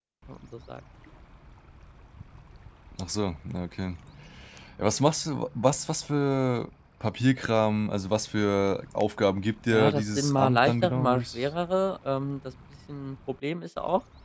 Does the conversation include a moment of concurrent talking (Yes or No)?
Yes